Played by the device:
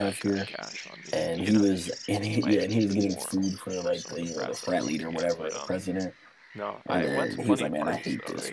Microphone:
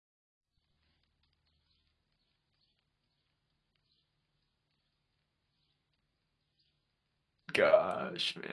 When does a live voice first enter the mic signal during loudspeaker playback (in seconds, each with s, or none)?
7.5 s